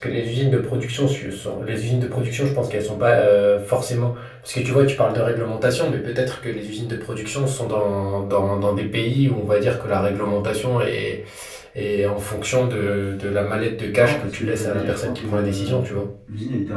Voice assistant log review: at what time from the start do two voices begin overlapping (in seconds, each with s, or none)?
13.9 s